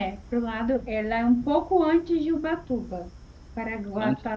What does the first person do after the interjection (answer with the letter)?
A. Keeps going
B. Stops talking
A